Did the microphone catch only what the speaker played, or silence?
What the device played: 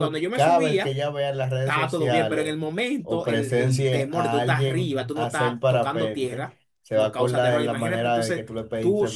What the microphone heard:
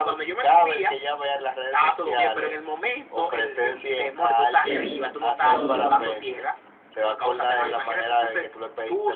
No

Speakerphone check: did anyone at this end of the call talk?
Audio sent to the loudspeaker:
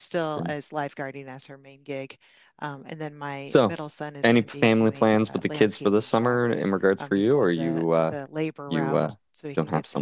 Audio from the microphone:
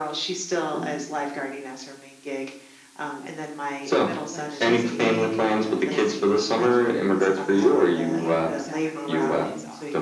Yes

